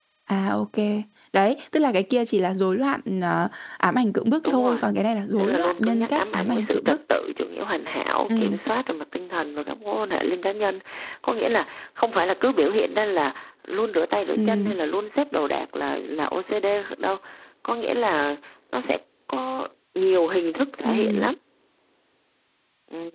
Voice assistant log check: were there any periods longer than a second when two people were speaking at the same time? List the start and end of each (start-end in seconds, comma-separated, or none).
5.4-7.0